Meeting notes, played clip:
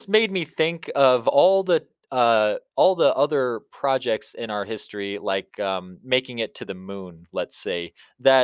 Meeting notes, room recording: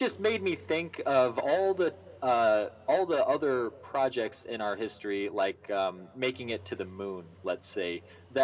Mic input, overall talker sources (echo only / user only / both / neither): echo only